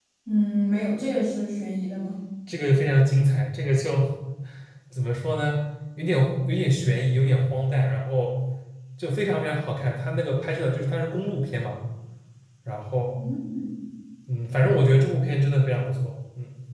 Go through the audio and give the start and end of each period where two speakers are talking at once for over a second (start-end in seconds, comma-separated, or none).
none